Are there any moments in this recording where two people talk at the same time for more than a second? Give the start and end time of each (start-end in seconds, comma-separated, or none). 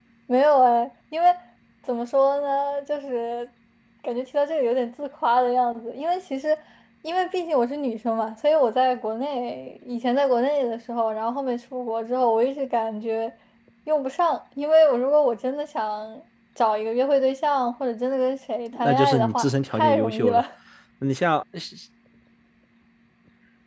18.8-20.4